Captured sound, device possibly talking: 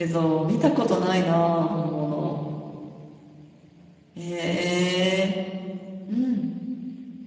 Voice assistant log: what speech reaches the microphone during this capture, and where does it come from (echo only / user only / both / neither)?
user only